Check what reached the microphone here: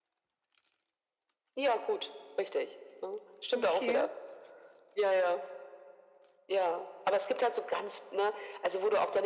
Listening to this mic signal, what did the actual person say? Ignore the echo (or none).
Okay,